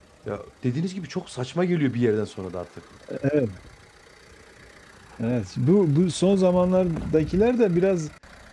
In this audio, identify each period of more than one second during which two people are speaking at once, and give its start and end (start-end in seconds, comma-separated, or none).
none